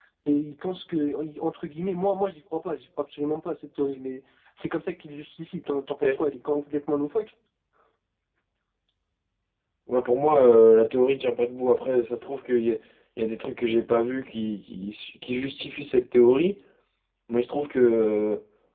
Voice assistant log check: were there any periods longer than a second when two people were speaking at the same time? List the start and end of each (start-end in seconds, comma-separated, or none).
none